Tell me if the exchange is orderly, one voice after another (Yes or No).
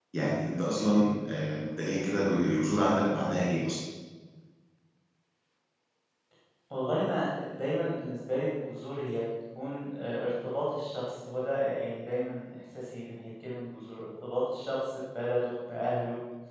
Yes